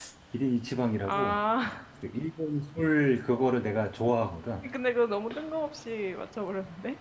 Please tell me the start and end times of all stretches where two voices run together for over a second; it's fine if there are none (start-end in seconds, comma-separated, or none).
none